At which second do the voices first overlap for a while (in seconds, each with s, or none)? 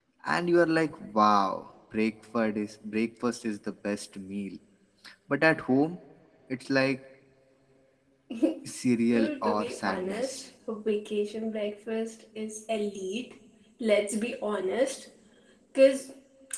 9.2 s